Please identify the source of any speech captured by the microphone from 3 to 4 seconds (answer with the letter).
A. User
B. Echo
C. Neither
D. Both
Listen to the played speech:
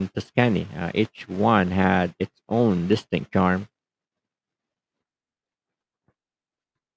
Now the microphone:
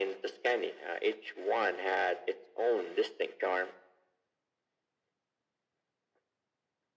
B